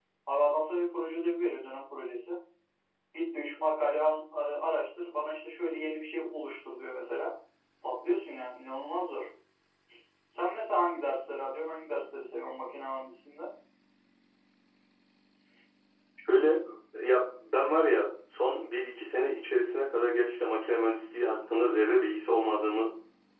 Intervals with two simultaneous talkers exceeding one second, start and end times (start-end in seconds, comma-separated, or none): none